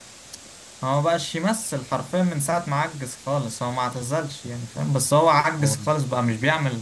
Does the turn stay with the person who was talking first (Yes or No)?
Yes